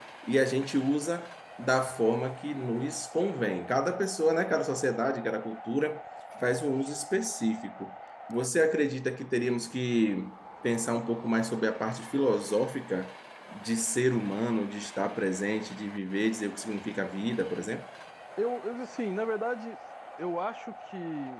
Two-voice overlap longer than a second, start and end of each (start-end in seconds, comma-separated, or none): none